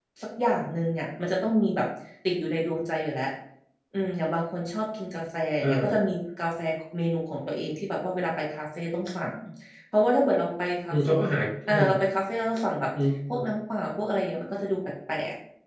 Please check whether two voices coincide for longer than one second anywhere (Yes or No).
No